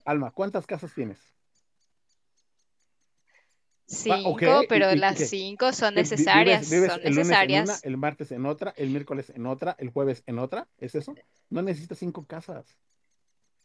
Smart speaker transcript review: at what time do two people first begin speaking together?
4.1 s

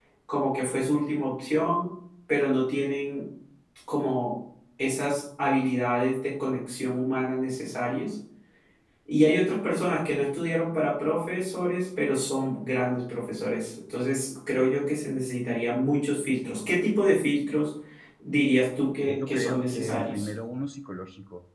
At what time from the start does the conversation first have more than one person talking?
19.0 s

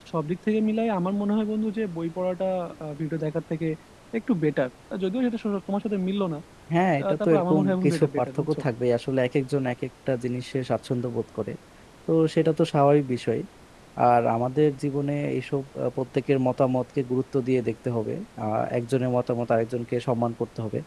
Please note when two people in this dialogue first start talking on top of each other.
7.0 s

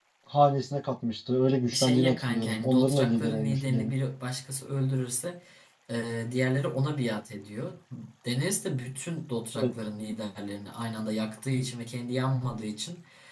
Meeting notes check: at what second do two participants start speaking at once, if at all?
1.7 s

